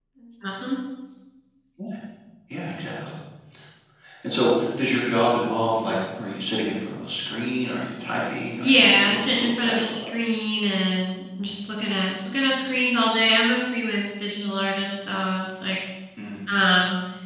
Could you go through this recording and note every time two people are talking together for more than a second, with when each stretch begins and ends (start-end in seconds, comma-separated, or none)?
8.6-10.1